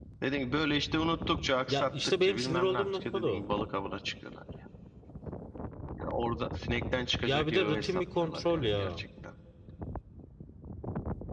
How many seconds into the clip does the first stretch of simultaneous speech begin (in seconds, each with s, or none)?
1.7 s